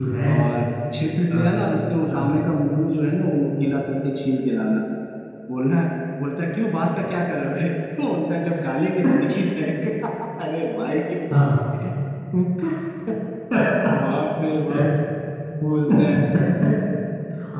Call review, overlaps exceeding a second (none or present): none